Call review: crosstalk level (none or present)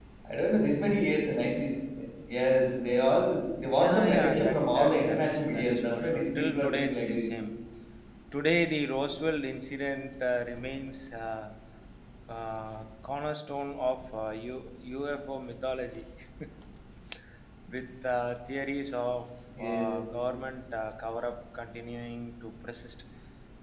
present